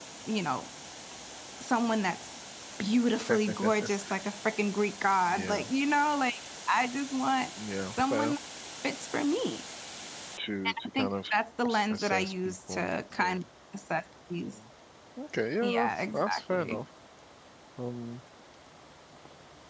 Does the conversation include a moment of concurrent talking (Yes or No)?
Yes